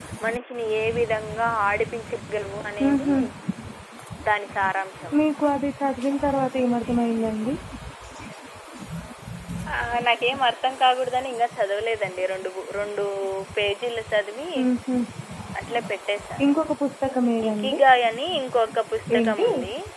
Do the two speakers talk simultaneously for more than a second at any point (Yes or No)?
No